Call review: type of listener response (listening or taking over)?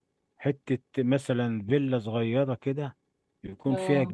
listening